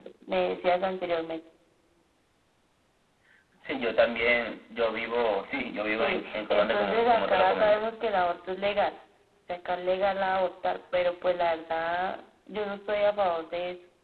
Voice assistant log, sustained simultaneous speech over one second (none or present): present